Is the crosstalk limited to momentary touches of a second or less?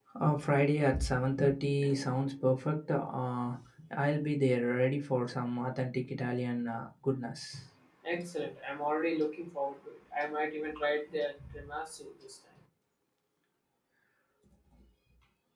Yes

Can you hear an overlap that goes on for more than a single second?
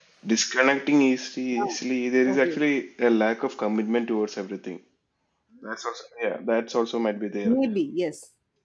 No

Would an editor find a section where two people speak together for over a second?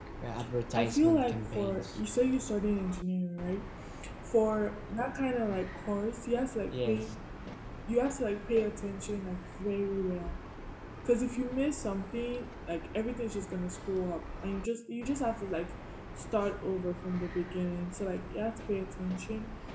Yes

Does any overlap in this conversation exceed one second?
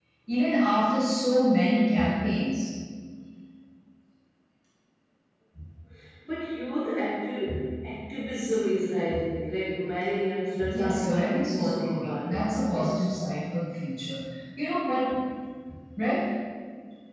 Yes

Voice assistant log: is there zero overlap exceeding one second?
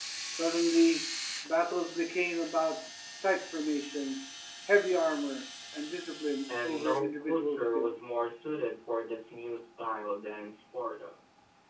No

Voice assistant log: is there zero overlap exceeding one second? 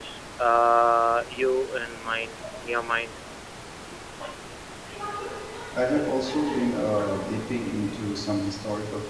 Yes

